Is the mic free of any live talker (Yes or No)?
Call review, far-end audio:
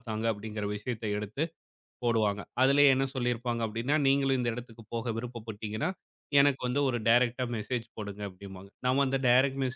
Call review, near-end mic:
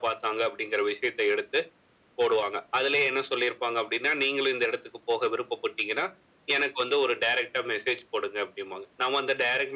Yes